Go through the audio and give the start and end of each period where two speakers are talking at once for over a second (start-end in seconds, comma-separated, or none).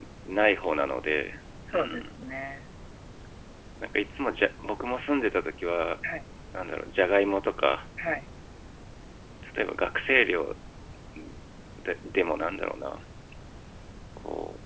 none